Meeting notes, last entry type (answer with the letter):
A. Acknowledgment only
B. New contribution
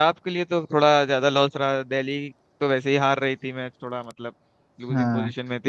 B